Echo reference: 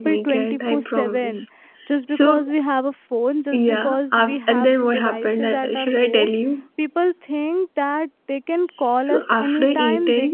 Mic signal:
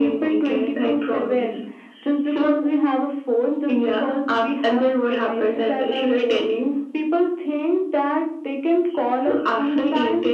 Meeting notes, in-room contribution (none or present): none